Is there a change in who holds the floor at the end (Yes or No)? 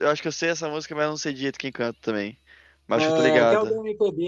Yes